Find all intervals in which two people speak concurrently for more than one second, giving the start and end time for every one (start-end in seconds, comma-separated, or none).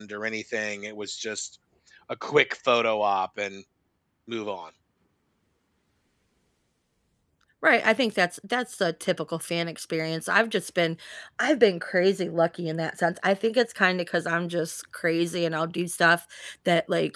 none